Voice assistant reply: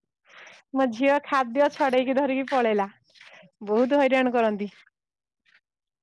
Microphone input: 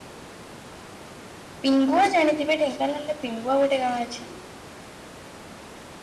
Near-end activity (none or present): present